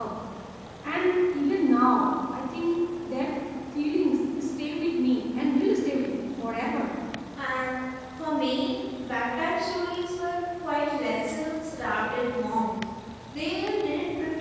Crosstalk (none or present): none